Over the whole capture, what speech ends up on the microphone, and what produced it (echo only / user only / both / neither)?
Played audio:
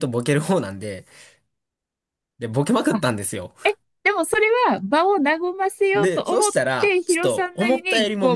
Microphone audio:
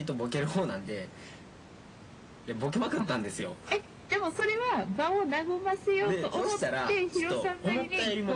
echo only